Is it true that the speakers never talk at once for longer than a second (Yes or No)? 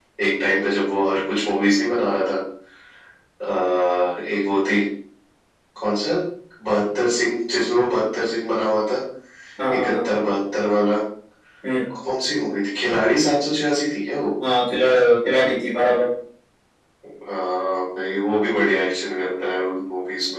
Yes